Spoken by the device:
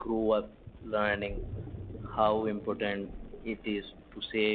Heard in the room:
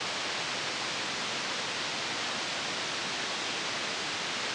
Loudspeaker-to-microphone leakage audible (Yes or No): No